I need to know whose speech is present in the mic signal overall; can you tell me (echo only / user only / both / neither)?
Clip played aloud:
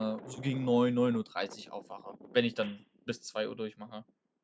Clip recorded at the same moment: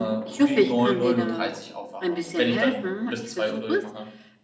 both